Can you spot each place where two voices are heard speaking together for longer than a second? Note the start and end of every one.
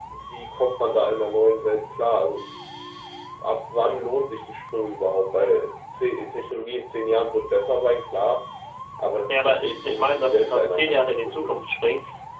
9.3-11.6

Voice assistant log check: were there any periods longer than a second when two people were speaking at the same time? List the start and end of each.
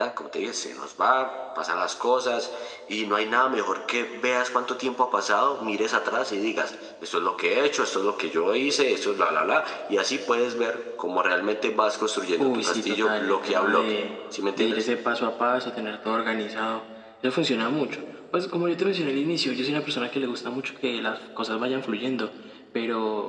12.4-14.0

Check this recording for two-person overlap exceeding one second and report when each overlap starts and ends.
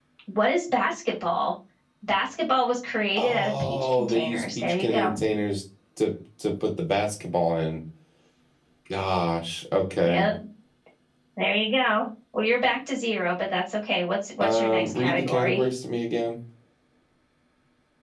3.2-5.1, 14.4-15.6

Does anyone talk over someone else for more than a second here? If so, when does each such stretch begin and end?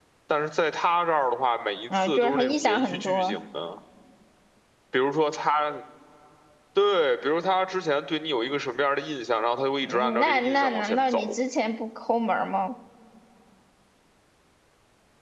2.0-3.4, 9.8-11.3

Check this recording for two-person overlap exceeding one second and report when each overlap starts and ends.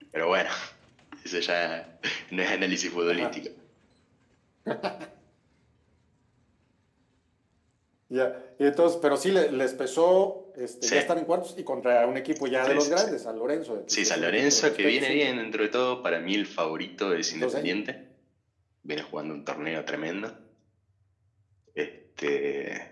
14.0-15.3

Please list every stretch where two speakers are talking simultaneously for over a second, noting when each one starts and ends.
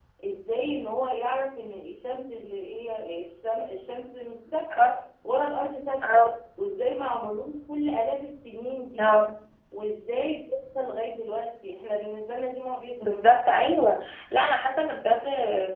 none

